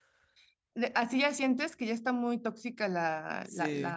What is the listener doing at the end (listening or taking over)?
taking over